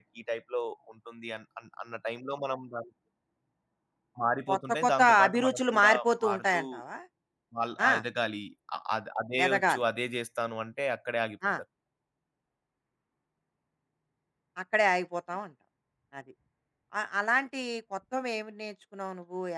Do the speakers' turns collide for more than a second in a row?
Yes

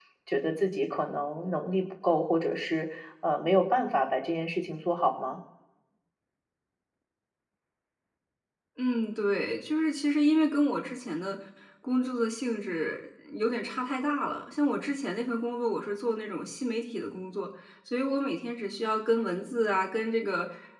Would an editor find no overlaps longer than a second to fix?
Yes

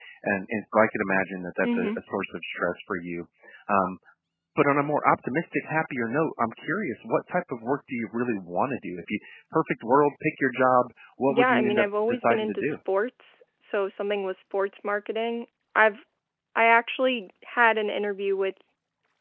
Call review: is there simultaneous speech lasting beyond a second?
Yes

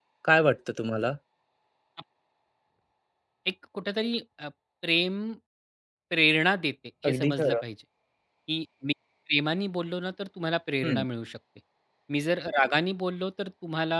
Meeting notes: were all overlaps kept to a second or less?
Yes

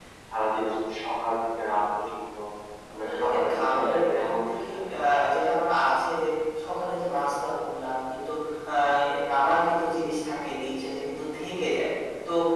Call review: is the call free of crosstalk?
No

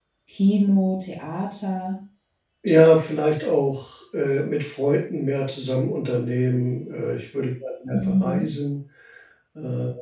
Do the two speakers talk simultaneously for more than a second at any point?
No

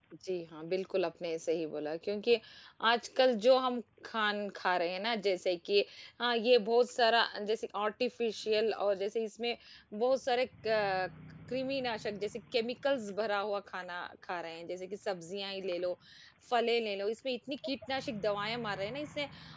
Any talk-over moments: No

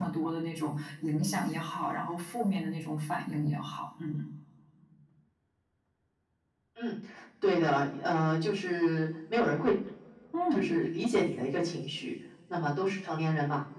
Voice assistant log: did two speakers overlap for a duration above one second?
No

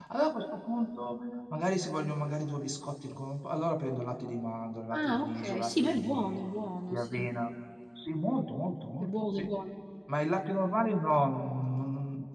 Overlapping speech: Yes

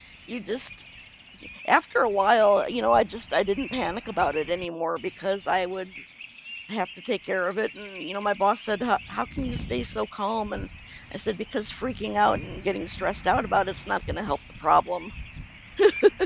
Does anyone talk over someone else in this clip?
No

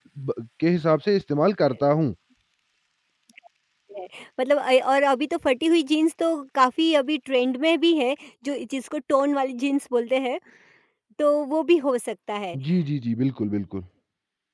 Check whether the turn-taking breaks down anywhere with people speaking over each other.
No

